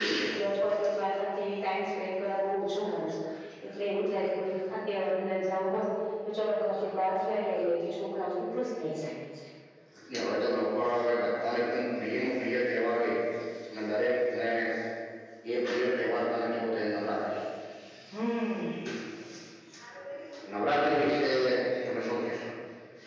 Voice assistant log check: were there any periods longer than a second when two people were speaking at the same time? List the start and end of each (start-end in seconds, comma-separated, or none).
none